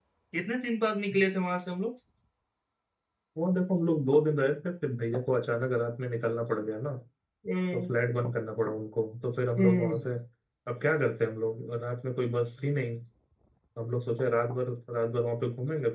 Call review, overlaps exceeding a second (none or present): none